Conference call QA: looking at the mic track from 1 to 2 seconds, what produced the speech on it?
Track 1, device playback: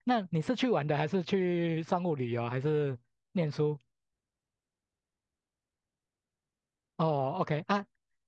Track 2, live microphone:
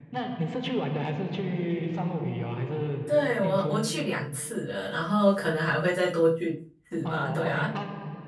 echo only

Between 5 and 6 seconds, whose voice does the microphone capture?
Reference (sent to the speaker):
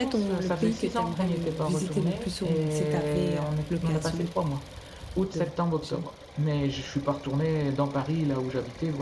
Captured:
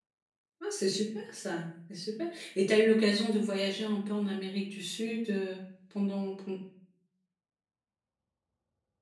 user only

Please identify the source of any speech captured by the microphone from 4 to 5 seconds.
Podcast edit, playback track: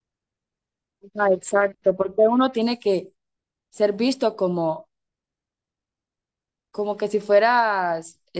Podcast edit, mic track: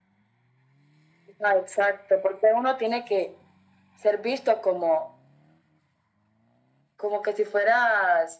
echo only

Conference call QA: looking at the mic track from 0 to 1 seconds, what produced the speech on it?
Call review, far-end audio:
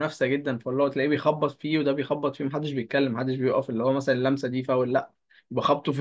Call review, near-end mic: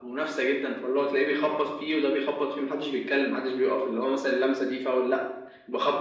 echo only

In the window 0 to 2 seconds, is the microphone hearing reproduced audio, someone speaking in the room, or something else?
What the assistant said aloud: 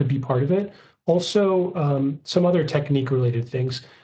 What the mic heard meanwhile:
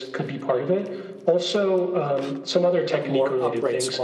echo only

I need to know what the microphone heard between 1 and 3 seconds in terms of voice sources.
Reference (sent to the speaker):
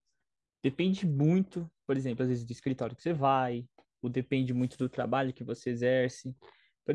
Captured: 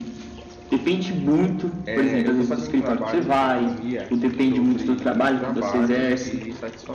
both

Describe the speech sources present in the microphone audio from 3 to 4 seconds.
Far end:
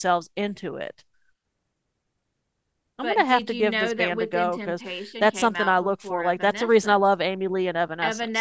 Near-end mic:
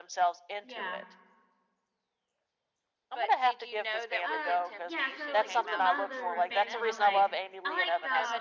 echo only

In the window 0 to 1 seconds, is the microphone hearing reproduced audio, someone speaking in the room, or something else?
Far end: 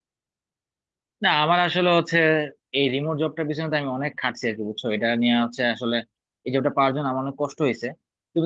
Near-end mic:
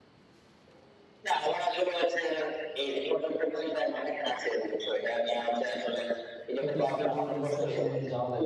neither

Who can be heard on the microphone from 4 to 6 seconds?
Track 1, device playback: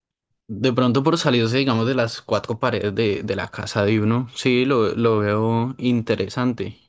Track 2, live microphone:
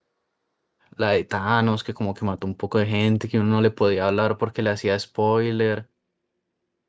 user only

